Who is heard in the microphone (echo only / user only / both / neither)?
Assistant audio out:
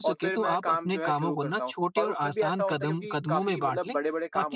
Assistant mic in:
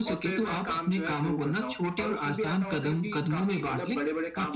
echo only